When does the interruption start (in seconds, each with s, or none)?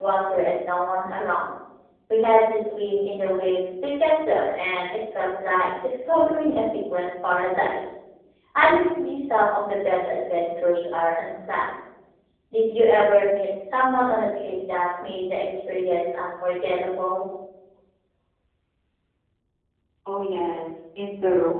none